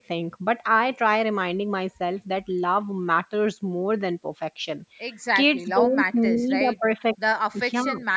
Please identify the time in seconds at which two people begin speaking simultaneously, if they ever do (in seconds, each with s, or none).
5.4 s